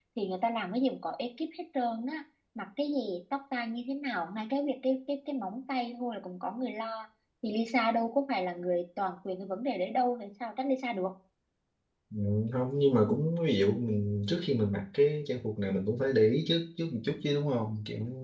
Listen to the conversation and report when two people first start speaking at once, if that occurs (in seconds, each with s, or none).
none